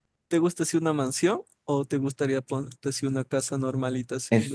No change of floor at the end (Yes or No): No